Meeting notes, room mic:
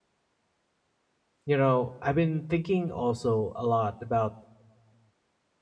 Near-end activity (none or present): present